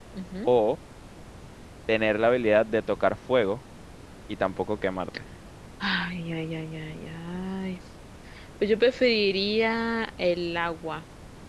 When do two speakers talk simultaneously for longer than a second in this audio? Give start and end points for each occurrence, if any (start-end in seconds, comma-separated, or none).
none